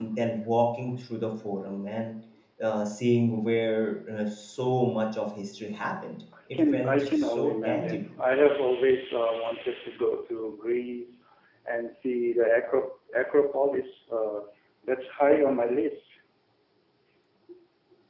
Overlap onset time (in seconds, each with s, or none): 6.5 s